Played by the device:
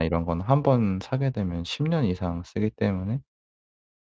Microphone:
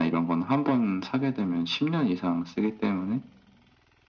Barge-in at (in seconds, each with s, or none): none